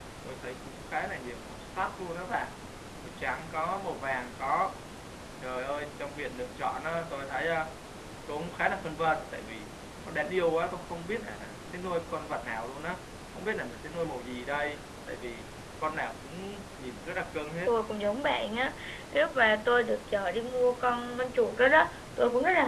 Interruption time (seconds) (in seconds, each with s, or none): none